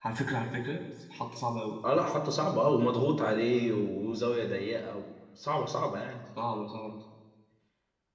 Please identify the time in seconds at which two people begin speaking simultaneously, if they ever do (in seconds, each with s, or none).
none